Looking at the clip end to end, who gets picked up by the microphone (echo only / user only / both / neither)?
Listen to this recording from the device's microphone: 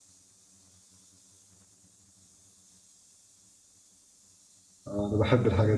user only